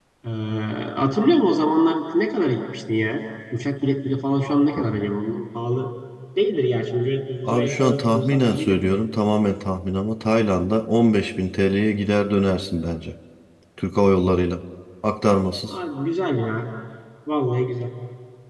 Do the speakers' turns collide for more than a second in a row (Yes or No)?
Yes